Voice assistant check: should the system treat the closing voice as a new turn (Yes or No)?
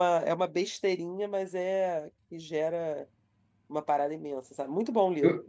Yes